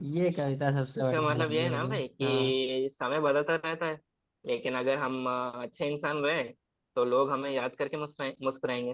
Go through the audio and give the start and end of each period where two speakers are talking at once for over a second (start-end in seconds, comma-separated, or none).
1.0-2.6